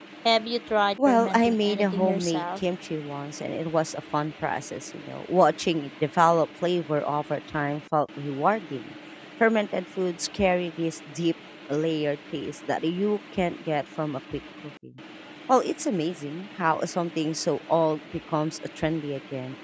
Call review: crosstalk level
present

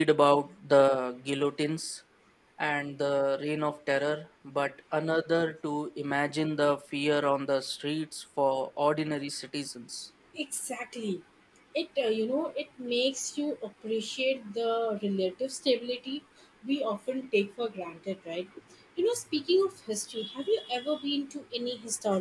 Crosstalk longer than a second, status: none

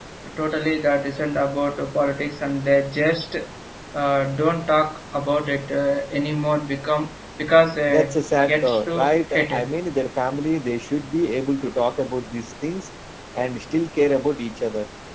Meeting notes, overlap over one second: present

